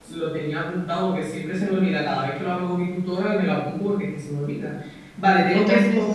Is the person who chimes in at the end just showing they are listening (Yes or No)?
Yes